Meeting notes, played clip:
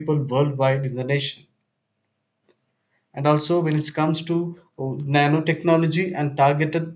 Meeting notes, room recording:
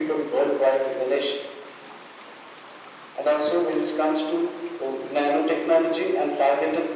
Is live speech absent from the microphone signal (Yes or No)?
Yes